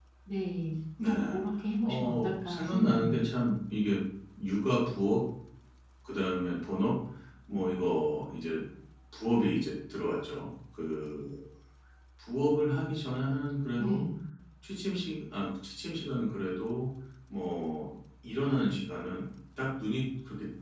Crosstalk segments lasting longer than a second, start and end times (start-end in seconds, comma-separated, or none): 1.8-3.2